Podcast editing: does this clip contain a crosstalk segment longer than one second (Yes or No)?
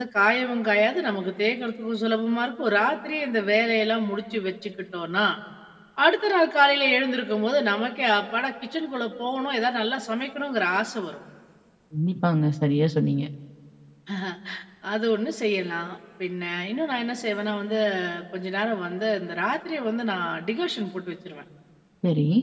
No